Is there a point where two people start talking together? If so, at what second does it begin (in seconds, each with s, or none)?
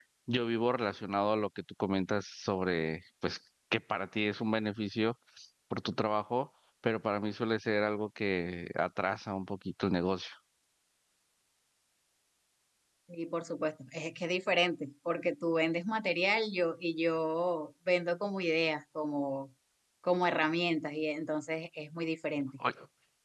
none